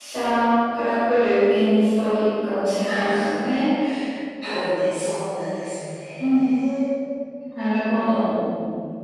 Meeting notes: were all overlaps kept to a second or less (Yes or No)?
Yes